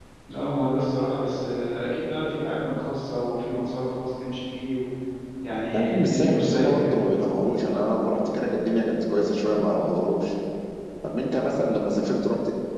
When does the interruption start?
5.7 s

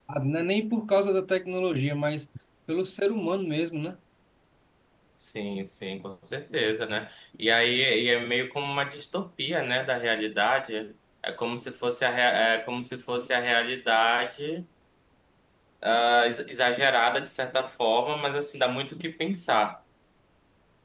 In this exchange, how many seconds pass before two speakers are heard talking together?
none

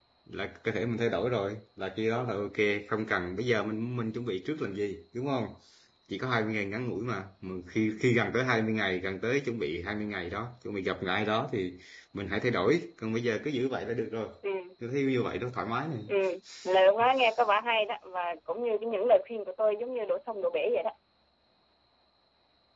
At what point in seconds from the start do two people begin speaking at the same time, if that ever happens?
none

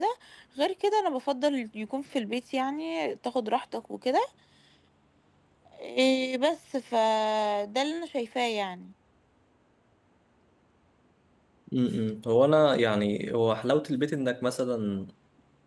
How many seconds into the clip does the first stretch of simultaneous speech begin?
none

